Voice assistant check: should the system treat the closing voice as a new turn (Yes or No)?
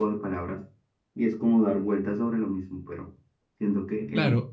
Yes